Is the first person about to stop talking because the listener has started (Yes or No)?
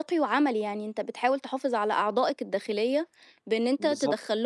No